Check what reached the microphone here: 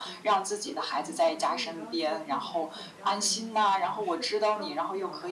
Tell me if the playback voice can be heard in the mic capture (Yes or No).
Yes